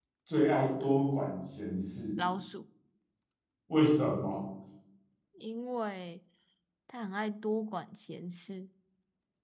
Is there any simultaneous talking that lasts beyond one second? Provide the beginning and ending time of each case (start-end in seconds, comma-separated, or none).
none